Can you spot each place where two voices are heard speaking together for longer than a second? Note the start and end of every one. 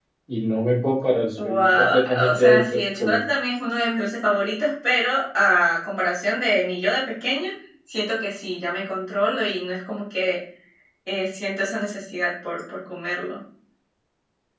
1.4-3.2

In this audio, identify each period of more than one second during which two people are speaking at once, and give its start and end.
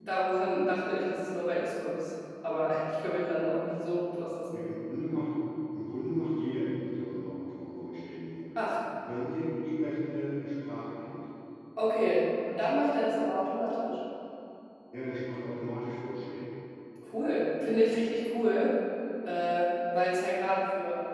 none

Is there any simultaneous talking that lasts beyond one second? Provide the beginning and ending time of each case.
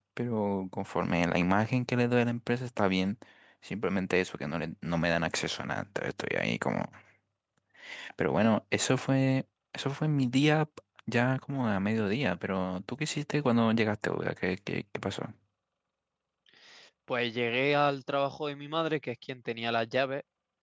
none

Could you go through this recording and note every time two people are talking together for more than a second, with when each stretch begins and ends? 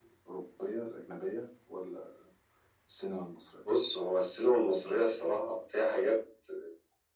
none

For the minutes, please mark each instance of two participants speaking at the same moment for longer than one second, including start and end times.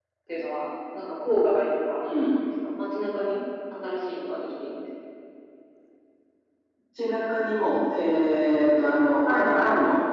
none

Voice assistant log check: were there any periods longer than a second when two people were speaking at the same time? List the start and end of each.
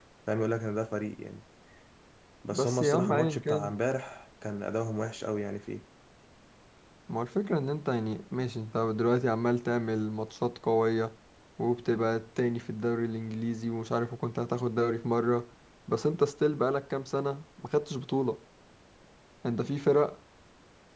2.5-3.7

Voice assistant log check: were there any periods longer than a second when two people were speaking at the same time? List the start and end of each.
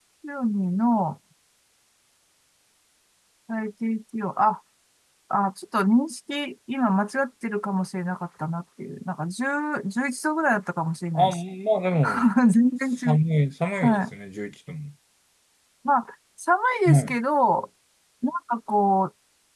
none

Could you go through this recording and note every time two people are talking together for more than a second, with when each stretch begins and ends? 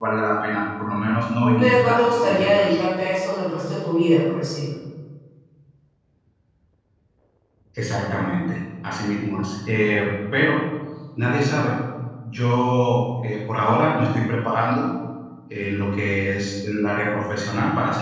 1.4-2.8

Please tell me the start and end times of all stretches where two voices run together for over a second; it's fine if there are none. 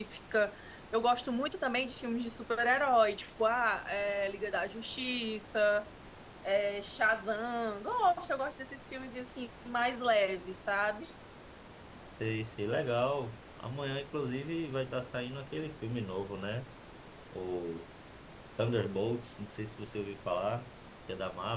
none

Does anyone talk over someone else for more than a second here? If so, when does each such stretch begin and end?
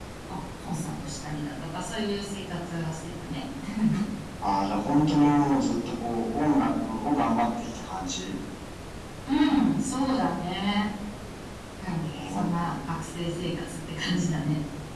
none

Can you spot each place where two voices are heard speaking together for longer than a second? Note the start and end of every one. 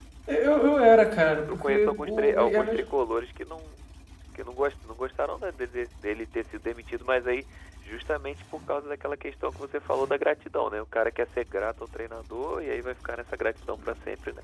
1.5-2.8

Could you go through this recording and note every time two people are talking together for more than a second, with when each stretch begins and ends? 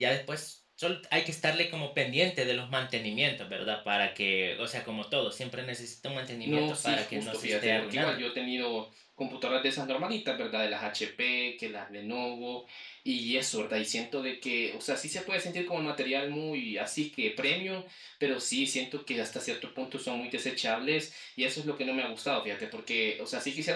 6.4-8.2

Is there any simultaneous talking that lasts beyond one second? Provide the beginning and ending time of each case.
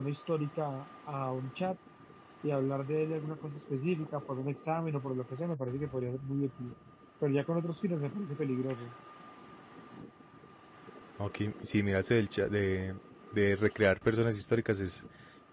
none

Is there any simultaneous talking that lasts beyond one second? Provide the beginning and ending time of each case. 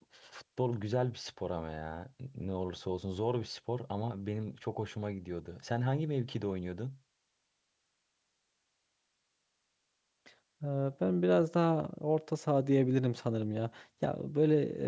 none

